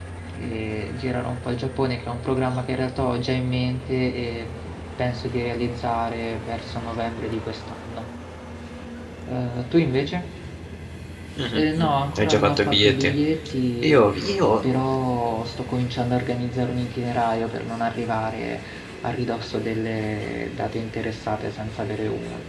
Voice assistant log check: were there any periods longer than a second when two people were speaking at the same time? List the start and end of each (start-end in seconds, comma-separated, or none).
11.5-13.1